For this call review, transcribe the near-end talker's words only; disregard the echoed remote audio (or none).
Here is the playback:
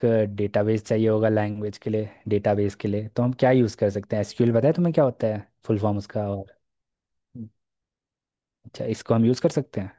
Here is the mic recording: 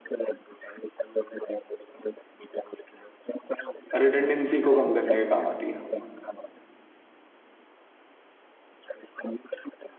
रिडंडेंसी को कम करने के काम आती है